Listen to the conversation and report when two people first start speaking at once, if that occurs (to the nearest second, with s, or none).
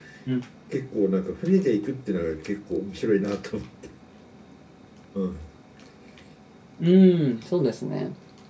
none